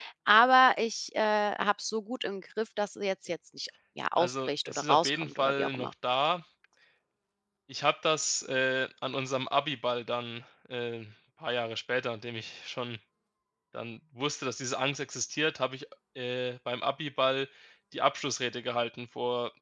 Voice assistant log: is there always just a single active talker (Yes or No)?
No